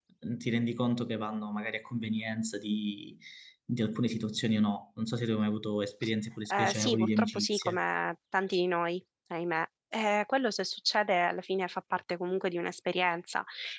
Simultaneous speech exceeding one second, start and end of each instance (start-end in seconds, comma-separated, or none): 6.5-7.8